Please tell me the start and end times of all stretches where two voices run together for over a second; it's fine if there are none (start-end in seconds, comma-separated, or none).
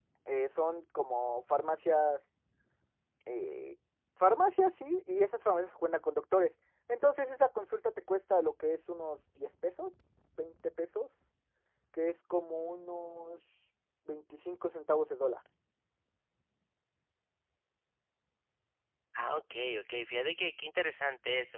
none